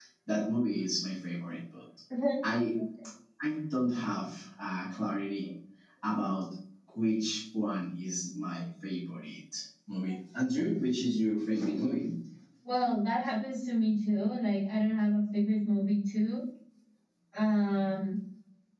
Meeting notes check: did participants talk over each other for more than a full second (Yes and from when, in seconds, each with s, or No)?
No